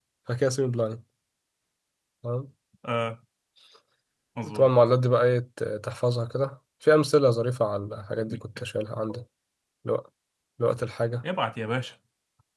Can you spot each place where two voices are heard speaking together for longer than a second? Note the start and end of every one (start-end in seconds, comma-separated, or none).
none